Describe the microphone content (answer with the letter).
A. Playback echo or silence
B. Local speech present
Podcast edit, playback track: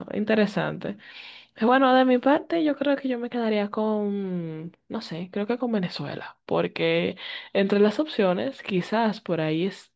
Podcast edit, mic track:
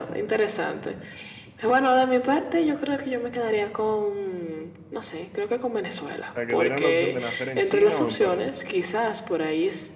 B